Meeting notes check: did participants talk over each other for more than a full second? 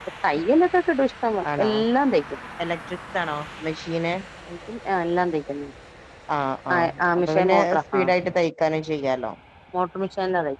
Yes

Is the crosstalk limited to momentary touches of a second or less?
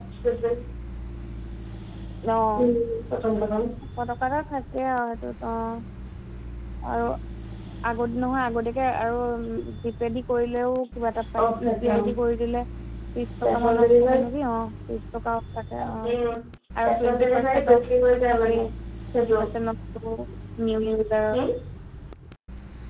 No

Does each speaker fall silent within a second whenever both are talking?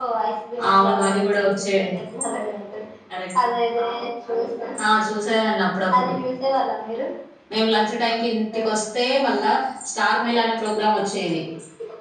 No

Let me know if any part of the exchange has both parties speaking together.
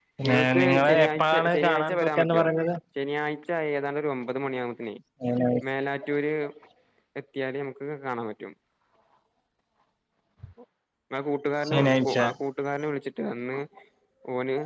Yes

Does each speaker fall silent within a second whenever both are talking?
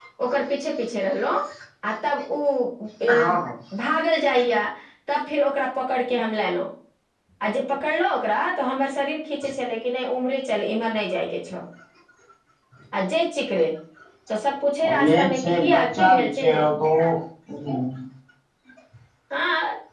No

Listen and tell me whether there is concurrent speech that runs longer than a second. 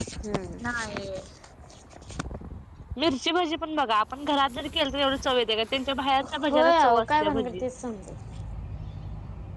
Yes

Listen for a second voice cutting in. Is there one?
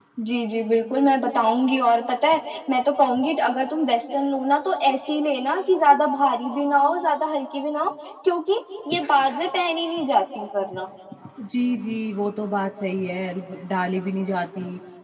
No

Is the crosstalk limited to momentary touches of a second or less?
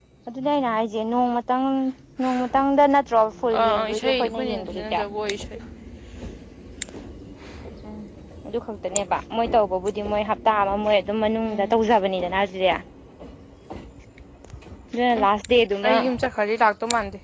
No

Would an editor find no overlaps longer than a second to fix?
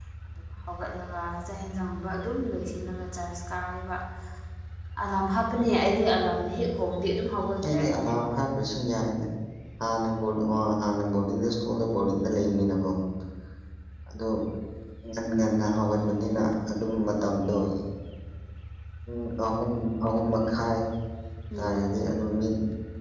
Yes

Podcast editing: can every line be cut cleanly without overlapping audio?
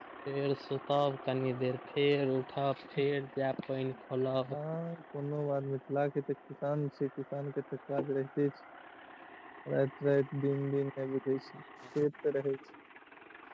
Yes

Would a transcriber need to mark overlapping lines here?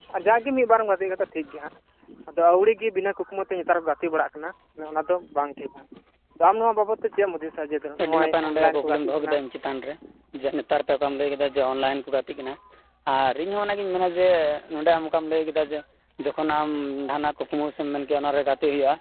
Yes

